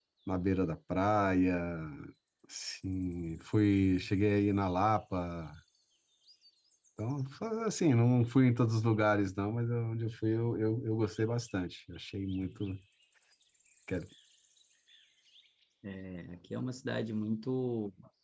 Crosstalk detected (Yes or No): No